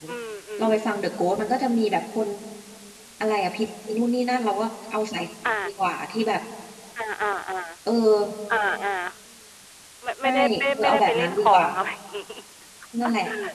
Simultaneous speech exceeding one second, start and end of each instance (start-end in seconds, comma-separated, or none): 10.2-11.7